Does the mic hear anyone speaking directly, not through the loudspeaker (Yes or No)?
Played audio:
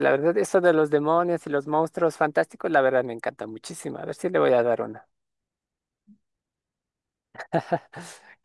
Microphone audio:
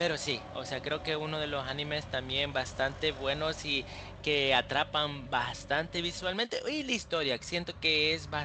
Yes